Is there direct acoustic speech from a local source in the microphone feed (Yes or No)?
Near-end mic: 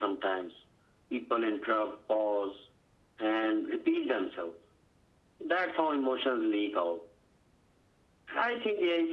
No